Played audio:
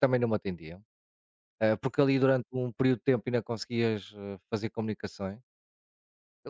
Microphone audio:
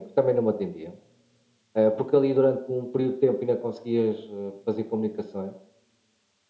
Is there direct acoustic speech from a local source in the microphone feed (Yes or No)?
No